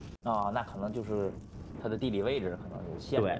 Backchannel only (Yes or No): No